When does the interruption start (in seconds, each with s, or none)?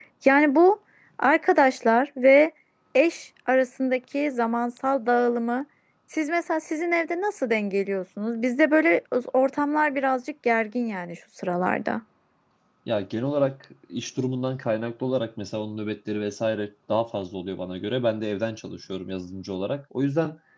none